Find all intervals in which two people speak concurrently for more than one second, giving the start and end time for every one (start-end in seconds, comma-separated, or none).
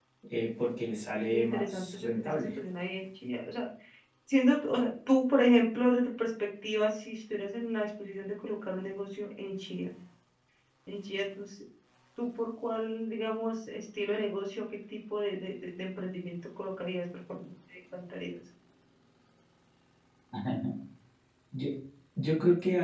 1.3-2.6